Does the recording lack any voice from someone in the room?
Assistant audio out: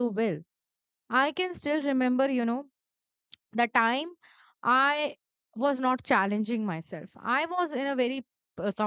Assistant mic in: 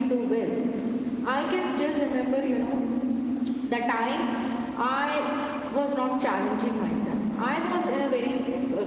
Yes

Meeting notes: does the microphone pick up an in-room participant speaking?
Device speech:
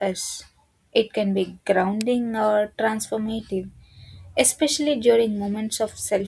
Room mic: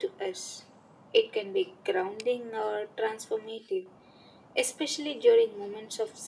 No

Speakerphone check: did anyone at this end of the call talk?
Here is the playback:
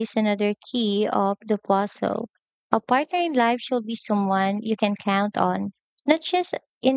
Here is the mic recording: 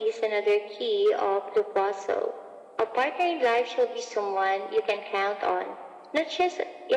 No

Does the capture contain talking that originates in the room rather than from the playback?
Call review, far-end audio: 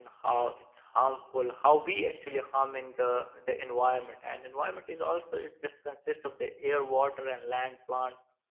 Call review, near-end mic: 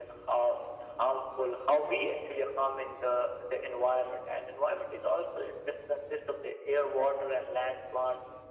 No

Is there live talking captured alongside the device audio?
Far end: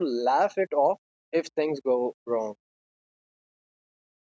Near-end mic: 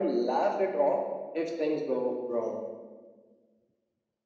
No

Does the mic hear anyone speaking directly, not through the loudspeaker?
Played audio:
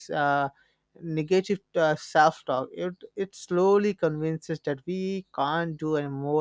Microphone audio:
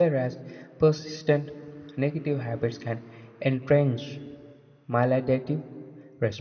Yes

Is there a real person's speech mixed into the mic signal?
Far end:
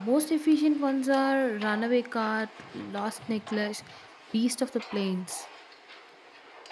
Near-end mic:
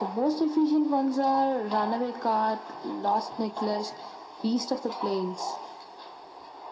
No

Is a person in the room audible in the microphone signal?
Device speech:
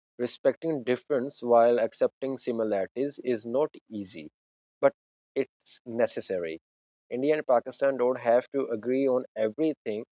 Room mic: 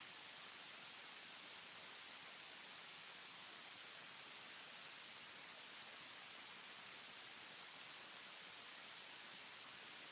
No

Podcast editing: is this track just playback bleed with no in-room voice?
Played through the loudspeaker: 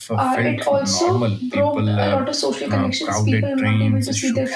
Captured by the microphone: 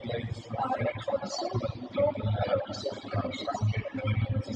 Yes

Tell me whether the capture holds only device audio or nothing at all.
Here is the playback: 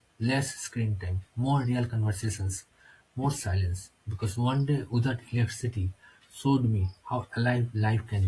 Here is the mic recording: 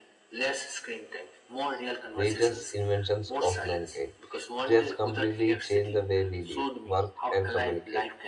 No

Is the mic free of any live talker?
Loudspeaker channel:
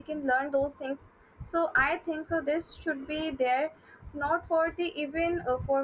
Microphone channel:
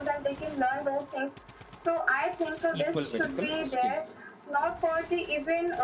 No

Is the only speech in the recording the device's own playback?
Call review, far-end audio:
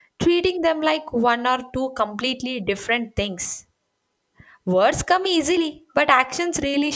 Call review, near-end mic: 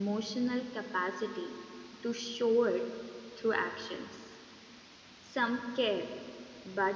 No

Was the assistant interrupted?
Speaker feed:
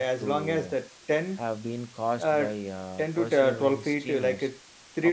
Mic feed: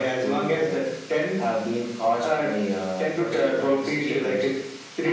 No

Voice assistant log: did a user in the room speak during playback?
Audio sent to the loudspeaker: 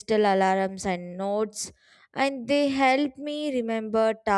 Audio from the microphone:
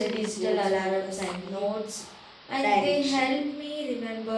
Yes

